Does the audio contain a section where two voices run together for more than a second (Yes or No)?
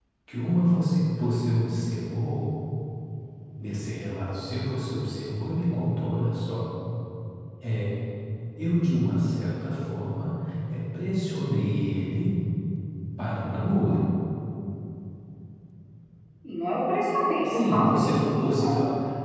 Yes